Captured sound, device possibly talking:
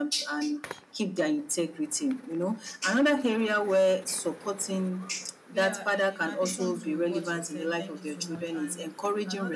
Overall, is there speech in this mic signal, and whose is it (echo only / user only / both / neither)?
both